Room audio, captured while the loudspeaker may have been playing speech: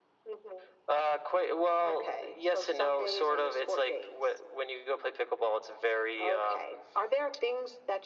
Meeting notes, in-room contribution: none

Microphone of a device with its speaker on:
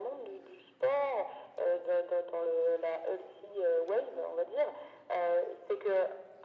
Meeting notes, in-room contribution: none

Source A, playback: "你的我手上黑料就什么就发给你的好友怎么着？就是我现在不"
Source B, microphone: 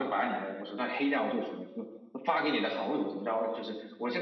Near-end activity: none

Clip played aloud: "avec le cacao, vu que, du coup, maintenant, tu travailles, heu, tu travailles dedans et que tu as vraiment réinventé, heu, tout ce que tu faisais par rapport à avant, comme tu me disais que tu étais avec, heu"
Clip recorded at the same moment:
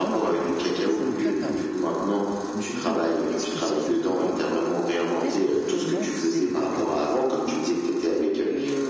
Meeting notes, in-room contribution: present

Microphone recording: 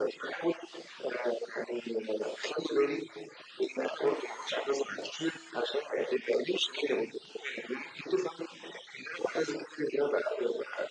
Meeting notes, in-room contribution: none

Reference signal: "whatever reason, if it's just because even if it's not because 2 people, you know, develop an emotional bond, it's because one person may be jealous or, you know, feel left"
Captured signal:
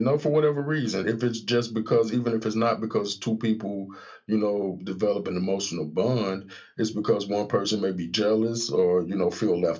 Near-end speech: none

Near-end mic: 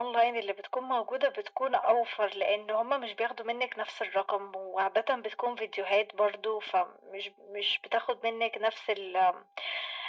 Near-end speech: none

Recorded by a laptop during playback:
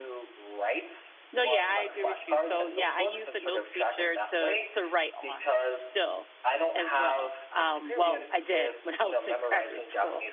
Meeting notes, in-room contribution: present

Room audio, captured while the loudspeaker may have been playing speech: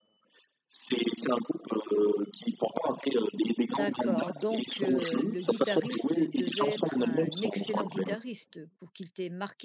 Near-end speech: present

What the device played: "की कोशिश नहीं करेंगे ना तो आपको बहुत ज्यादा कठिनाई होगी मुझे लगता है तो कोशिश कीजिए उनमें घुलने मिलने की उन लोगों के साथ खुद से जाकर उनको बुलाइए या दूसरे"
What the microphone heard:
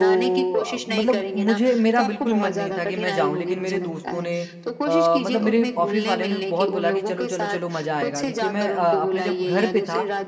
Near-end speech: present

